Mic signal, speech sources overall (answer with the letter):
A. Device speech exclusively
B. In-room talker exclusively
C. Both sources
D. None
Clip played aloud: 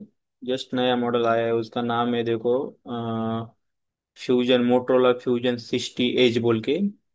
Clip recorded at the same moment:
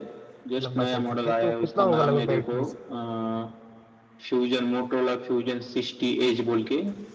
C